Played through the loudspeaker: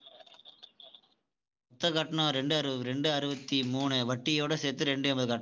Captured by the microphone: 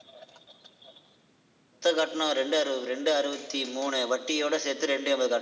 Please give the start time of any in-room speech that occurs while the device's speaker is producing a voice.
none

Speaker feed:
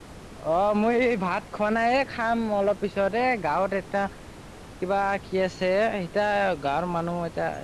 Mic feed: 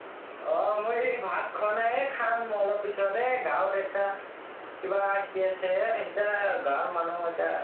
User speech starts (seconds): none

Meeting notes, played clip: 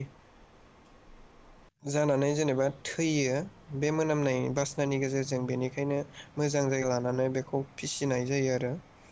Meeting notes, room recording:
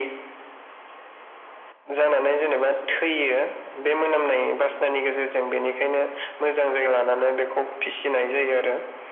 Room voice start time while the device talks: none

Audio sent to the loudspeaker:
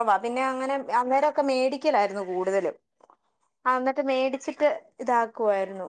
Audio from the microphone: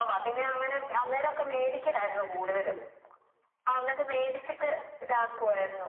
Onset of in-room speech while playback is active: none

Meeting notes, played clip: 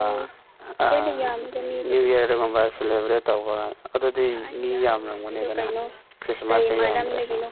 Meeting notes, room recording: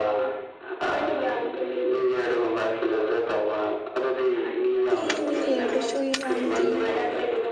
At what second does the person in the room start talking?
5.0 s

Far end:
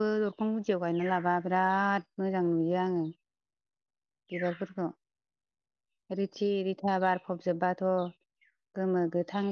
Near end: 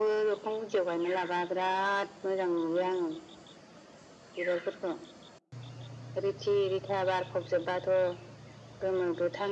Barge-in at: none

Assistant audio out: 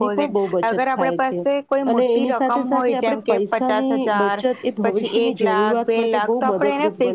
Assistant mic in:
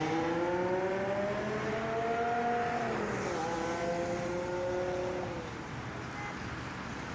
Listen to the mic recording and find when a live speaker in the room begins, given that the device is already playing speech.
none

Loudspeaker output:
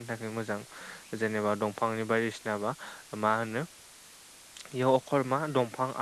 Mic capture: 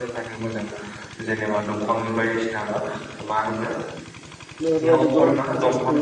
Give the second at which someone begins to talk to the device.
4.6 s

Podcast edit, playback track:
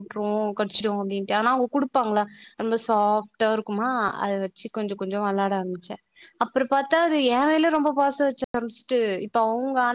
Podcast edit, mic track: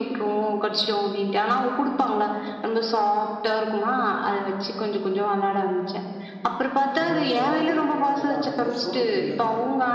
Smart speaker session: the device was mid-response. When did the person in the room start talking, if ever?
7.0 s

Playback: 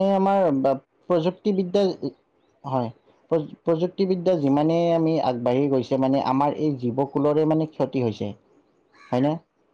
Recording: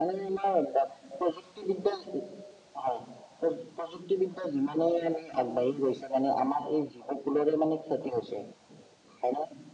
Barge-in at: none

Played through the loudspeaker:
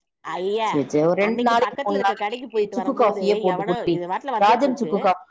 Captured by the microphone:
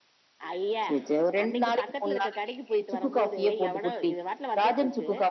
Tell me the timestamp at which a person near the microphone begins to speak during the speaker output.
none

